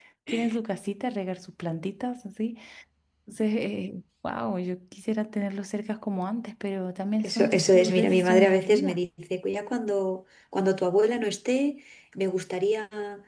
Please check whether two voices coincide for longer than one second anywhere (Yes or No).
Yes